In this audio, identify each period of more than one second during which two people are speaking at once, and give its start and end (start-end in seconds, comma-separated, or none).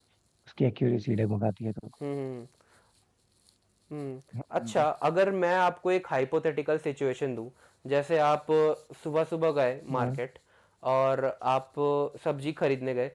none